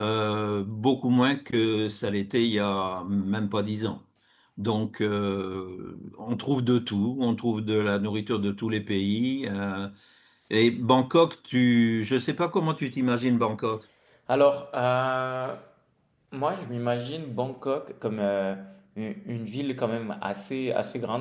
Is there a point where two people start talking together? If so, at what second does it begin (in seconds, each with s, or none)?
none